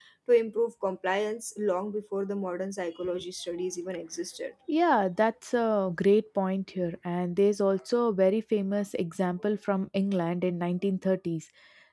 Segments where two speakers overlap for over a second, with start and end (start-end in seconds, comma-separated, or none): none